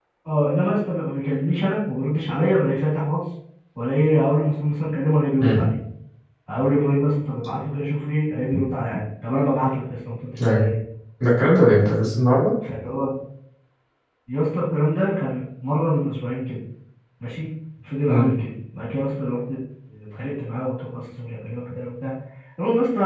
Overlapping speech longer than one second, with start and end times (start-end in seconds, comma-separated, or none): none